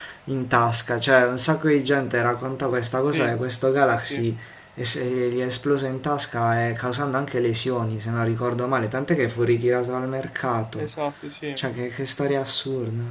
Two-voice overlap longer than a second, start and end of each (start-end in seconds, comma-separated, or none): none